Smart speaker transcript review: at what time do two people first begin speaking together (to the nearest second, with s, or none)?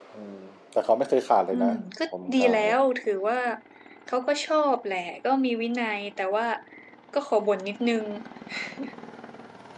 2 s